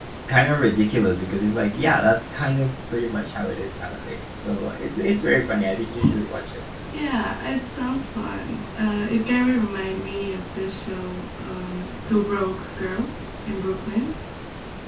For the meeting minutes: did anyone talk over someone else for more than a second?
No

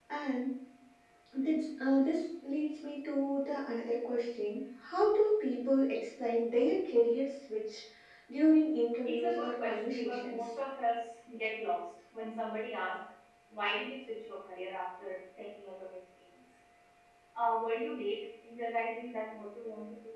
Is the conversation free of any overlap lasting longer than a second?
No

